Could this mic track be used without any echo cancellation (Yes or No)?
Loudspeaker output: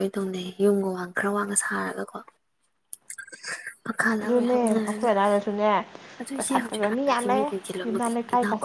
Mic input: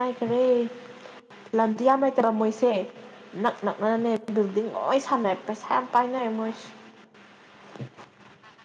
Yes